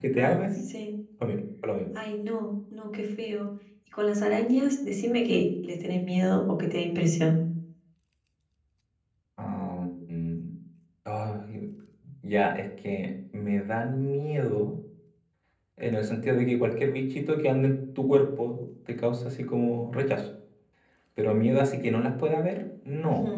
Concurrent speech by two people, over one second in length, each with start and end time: none

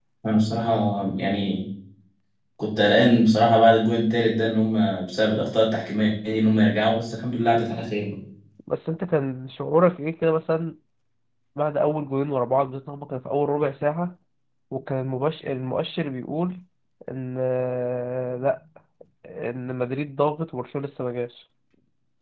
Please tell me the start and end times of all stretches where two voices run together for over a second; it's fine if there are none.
none

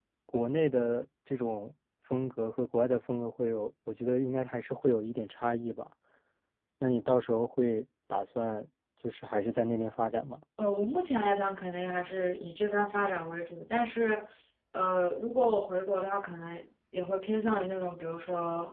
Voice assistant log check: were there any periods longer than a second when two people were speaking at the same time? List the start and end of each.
none

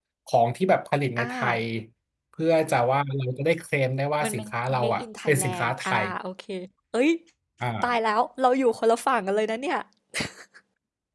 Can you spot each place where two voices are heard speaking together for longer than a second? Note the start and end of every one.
4.2-6.1

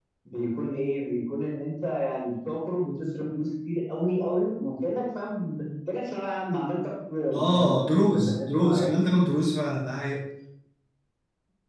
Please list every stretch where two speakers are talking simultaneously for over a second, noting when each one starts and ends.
7.9-9.2

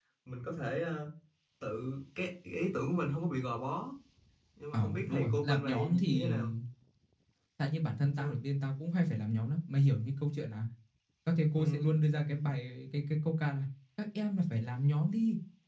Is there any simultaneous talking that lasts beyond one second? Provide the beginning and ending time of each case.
4.7-6.5

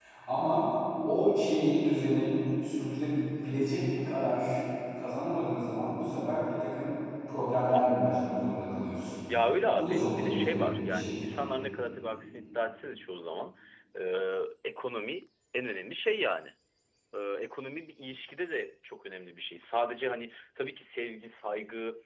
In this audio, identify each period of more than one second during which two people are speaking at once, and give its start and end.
9.8-11.2

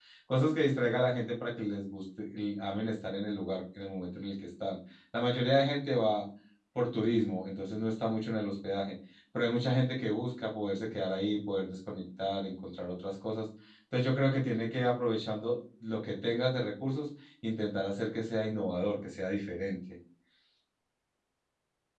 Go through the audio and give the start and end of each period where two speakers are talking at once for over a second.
none

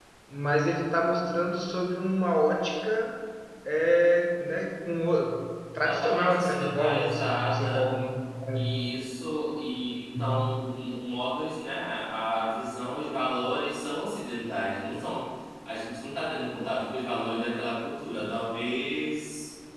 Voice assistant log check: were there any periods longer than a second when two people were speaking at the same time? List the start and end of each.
5.8-7.9

